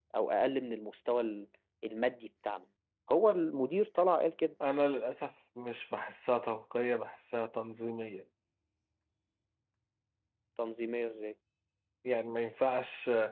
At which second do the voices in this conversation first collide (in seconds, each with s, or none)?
none